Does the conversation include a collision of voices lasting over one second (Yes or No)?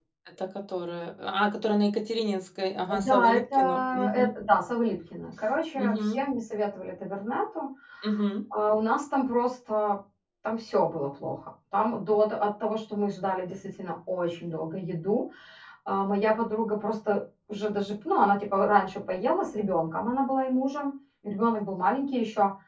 Yes